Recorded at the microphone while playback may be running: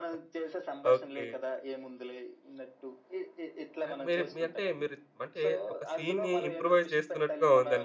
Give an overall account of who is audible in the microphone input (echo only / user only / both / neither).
both